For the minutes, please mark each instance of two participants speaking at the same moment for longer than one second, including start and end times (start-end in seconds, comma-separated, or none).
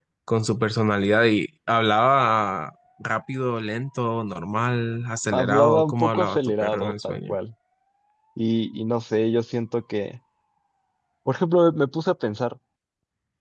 5.3-7.4